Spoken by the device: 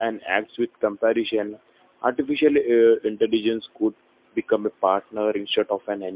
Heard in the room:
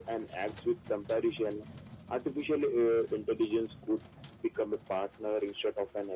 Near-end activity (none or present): none